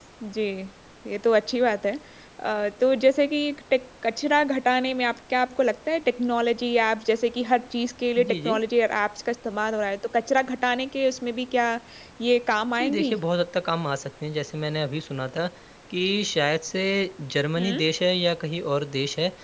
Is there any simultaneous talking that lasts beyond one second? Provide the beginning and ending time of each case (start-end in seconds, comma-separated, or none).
none